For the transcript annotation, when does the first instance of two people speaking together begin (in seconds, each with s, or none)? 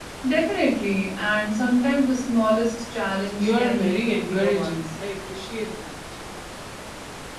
3.4 s